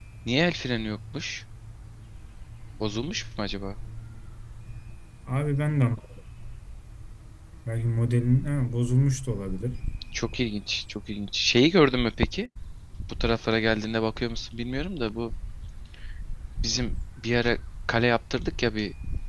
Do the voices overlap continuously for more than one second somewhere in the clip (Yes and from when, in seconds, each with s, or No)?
No